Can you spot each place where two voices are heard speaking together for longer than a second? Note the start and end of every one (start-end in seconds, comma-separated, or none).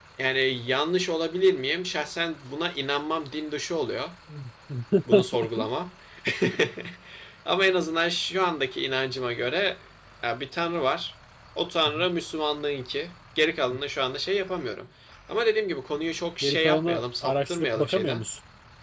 16.4-18.2